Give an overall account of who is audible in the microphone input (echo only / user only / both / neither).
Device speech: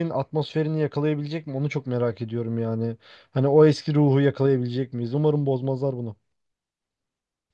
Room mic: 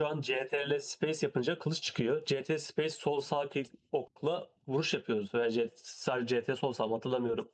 user only